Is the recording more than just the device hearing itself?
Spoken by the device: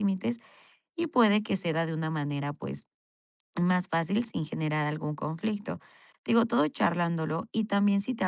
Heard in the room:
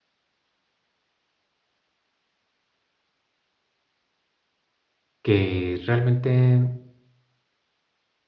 Yes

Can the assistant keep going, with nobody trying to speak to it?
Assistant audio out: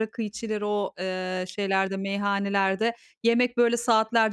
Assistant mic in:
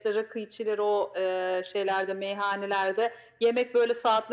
Yes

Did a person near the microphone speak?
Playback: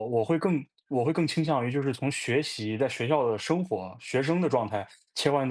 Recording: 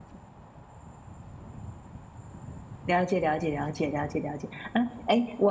Yes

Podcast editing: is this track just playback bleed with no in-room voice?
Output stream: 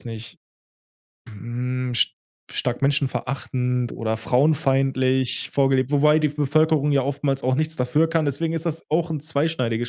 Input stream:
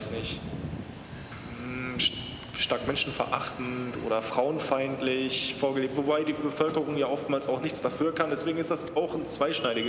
Yes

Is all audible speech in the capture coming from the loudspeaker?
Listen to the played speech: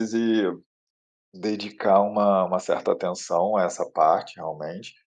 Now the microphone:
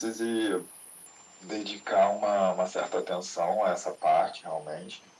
Yes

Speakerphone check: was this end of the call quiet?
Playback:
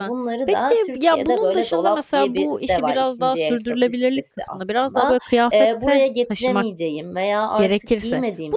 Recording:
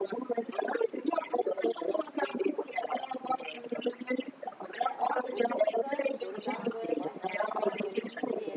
No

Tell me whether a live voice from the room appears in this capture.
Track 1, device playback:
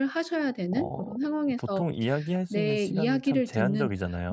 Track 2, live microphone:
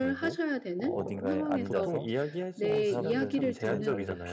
Yes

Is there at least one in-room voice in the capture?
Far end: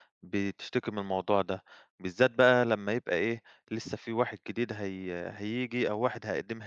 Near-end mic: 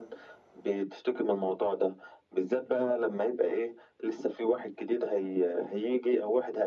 No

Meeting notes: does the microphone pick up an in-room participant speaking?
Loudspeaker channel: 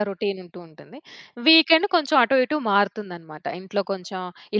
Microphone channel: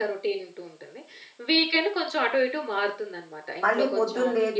Yes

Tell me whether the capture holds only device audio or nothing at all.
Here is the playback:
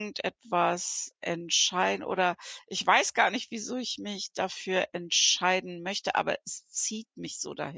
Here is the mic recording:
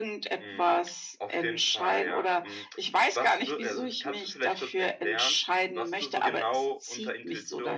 No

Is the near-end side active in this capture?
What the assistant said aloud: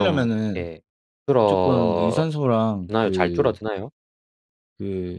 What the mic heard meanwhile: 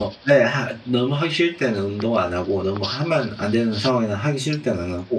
Yes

